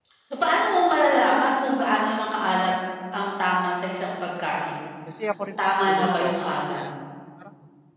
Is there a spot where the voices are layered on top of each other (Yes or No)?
Yes